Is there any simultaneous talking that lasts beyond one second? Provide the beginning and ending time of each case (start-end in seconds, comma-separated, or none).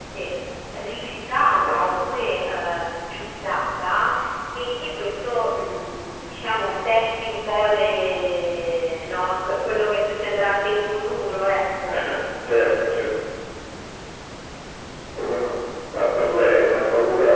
none